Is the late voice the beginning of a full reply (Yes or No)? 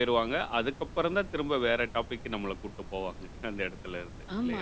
Yes